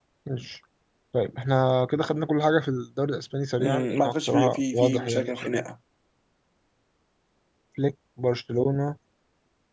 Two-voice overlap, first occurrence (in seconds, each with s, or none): 3.6 s